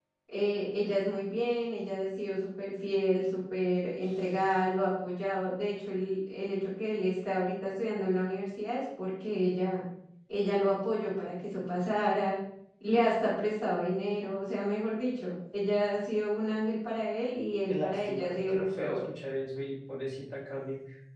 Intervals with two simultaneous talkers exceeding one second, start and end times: 17.7-19.0

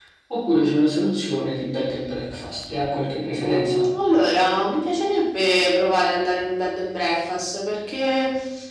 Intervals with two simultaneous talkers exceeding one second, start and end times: none

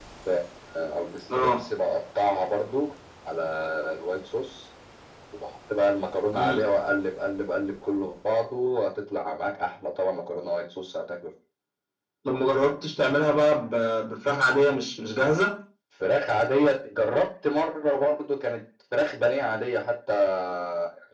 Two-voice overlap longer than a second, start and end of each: none

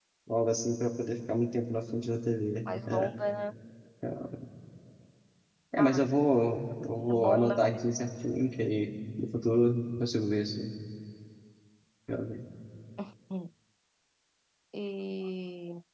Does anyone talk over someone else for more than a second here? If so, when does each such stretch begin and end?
none

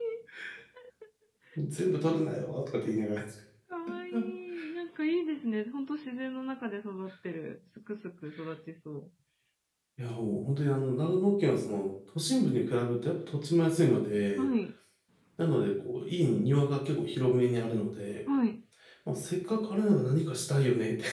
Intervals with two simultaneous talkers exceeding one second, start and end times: none

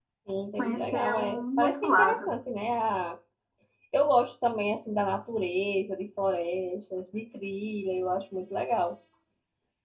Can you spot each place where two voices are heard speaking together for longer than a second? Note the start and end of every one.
0.6-2.3

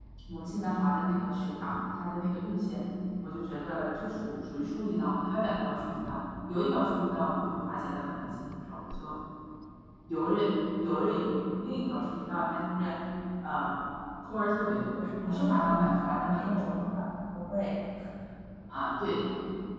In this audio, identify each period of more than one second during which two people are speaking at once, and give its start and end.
14.9-16.9

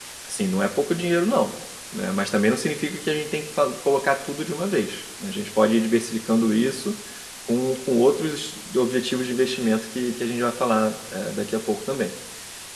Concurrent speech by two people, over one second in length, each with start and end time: none

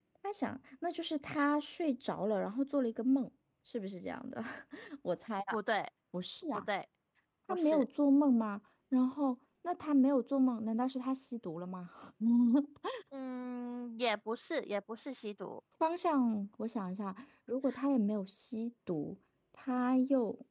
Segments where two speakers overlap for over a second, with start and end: none

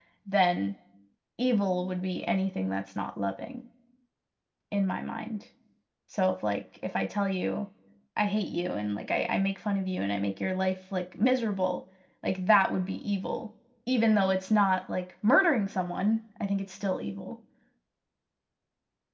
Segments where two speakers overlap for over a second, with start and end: none

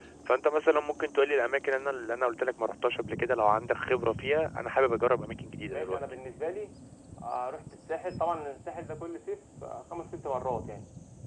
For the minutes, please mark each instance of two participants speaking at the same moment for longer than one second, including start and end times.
none

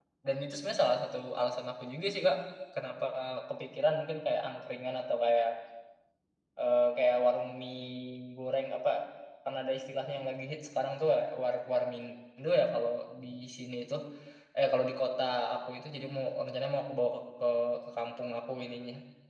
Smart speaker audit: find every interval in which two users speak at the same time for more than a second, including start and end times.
none

